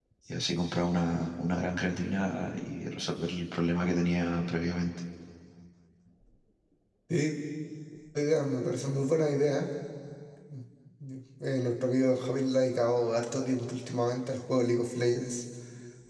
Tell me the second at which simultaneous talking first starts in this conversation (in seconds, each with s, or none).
none